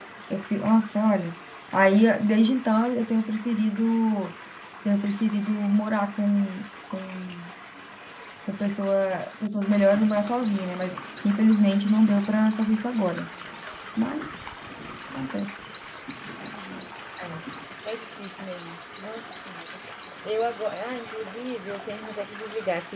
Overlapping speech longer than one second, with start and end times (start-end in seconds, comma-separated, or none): none